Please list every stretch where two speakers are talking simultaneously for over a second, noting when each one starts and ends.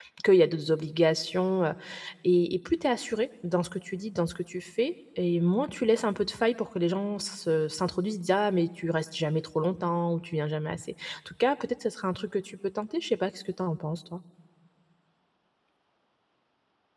none

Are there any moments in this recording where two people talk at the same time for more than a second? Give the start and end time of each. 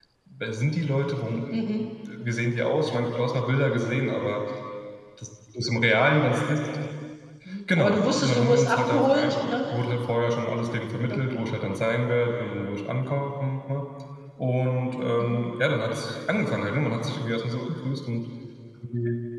7.8-9.5

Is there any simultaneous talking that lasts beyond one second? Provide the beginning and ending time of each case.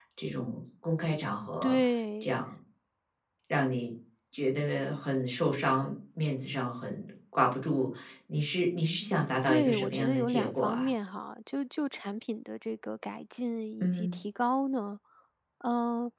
9.5-10.9

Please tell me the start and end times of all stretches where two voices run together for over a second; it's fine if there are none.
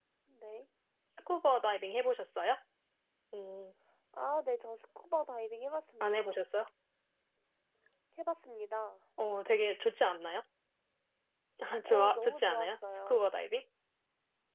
11.8-13.2

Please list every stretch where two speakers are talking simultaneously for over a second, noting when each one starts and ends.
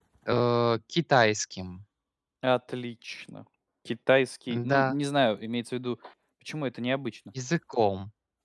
none

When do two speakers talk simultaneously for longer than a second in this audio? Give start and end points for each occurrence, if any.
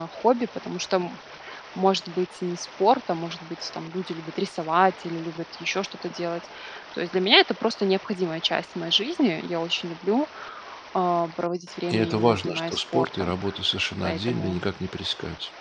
11.9-13.3

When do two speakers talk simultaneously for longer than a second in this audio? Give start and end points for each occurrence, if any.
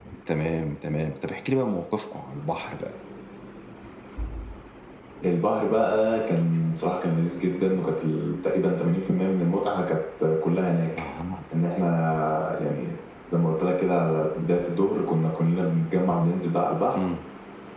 none

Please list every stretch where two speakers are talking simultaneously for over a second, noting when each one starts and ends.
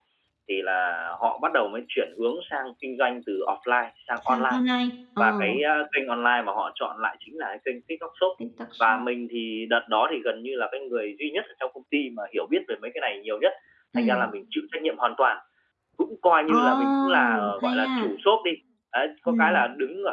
16.5-18.1

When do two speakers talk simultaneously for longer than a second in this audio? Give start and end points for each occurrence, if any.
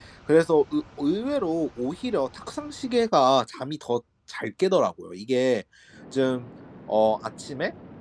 none

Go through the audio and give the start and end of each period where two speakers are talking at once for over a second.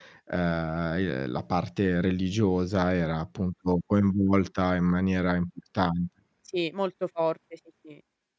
none

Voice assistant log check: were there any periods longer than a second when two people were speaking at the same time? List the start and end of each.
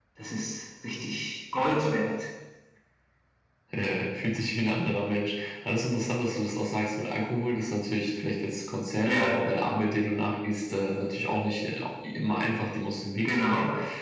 none

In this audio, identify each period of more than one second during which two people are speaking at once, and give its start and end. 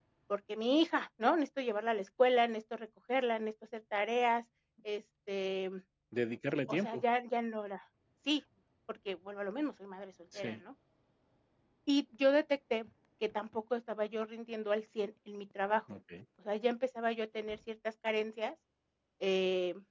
none

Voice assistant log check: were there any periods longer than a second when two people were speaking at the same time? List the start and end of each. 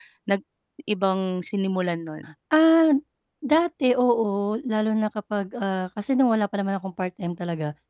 none

